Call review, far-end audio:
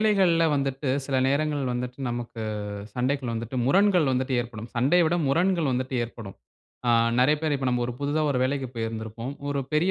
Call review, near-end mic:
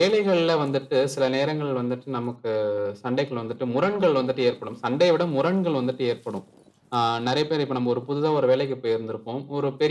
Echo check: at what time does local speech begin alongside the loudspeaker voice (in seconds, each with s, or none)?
none